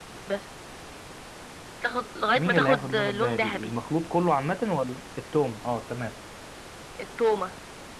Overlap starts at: 2 s

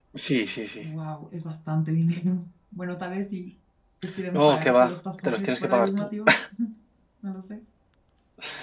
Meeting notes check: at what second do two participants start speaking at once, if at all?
4 s

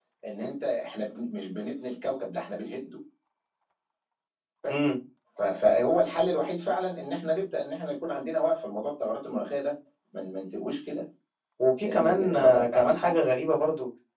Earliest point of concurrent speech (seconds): 12 s

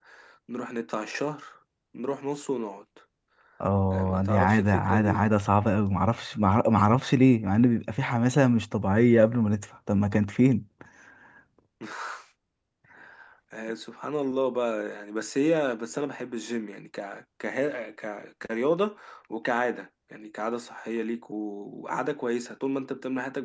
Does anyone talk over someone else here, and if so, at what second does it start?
4 s

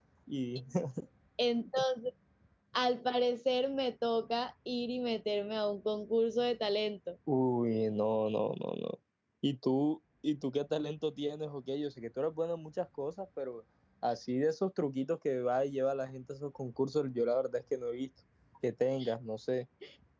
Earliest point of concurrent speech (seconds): none

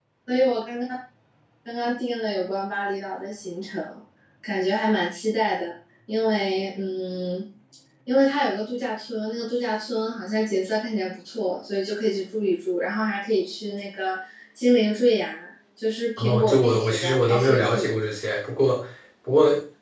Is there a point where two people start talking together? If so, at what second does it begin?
16 s

